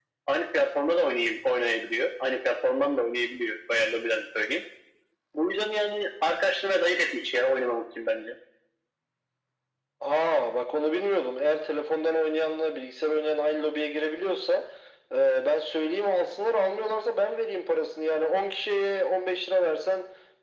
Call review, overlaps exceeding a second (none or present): none